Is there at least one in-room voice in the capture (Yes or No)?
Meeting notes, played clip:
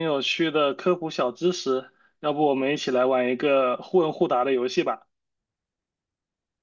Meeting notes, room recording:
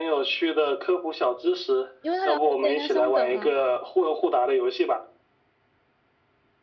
Yes